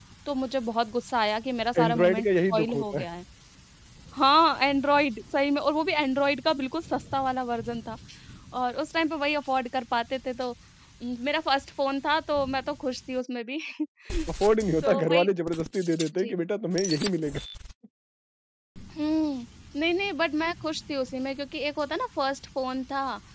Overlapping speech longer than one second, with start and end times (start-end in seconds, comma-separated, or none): 1.8-3.1